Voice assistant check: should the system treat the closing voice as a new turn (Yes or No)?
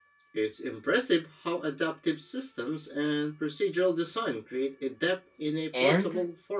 Yes